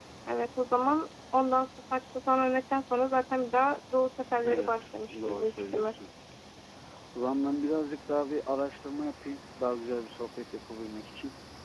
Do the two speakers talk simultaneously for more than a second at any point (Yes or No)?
Yes